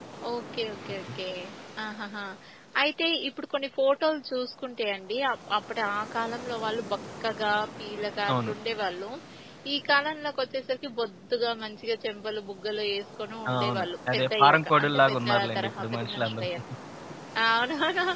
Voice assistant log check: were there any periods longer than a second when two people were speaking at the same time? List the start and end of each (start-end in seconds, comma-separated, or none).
13.5-16.5